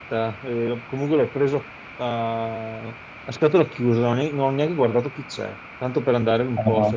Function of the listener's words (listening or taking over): listening